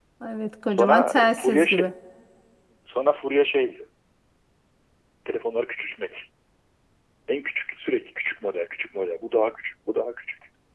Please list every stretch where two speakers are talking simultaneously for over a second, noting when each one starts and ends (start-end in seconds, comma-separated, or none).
0.7-1.9